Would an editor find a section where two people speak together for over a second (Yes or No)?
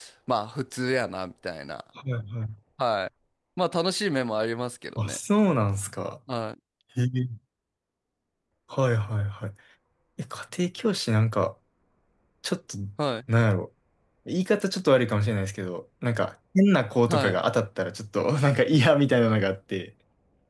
No